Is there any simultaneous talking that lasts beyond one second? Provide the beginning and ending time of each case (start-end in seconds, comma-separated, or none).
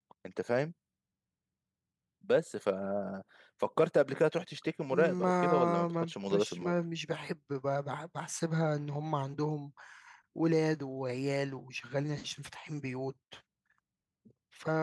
4.9-6.7